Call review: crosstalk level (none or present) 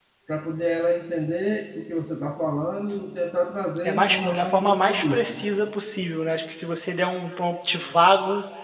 present